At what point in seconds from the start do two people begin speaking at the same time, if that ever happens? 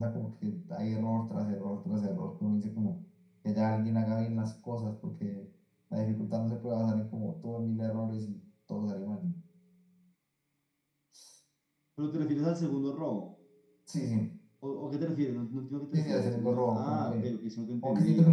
15.9 s

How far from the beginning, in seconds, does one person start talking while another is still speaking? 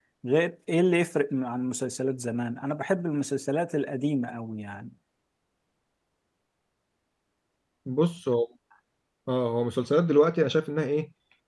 none

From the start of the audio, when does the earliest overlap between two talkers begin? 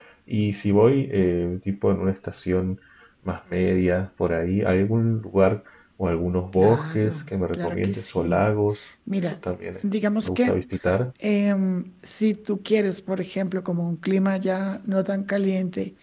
6.5 s

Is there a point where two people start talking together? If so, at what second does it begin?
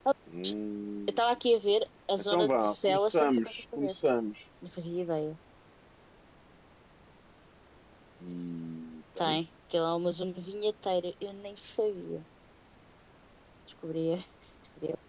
2.3 s

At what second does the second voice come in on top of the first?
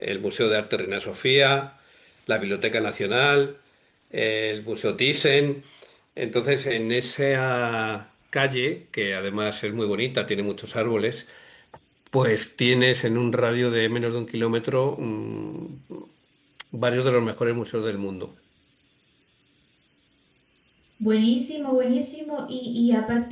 none

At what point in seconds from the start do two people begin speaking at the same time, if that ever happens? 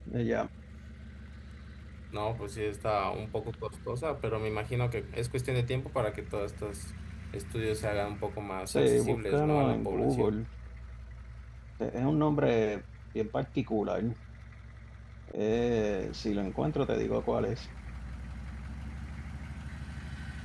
8.7 s

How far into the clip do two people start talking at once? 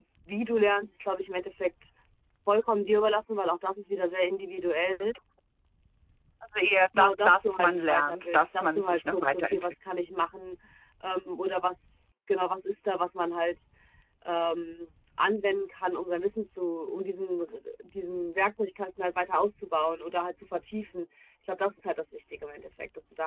7.0 s

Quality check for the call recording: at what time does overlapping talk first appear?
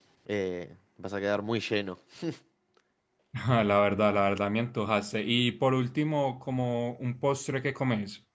none

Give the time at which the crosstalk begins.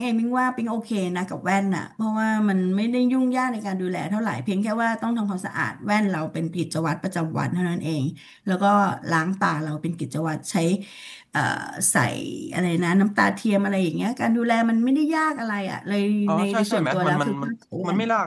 16.3 s

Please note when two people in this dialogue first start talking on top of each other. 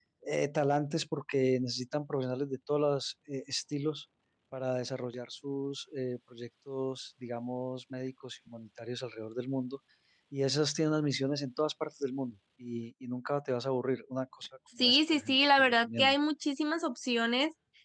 14.8 s

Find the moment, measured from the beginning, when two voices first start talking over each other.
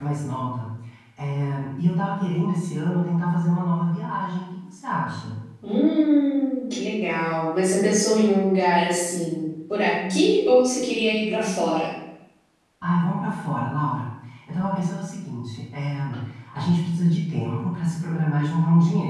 none

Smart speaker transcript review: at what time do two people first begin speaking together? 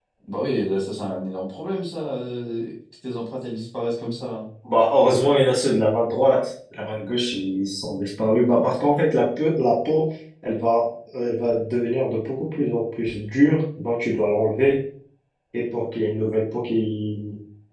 none

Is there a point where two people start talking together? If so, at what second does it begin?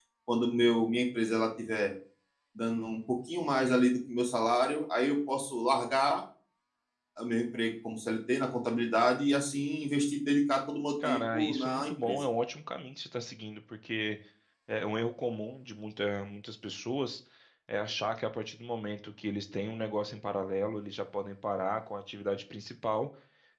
11.0 s

